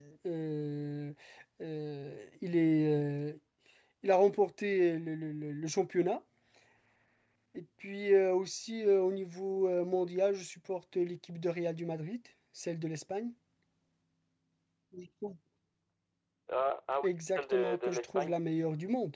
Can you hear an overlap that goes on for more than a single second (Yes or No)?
Yes